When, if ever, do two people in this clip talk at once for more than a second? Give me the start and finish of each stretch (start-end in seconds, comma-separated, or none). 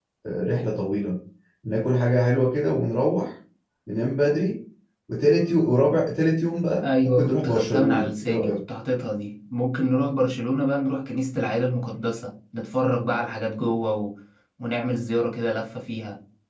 6.8-8.6